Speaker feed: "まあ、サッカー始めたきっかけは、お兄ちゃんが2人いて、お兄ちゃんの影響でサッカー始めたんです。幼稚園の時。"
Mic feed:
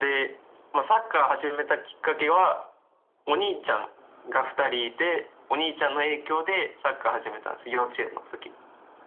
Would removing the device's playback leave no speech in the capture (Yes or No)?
Yes